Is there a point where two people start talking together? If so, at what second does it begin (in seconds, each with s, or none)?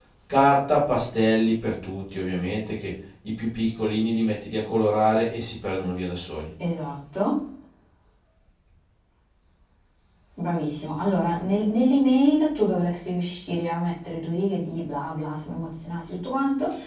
none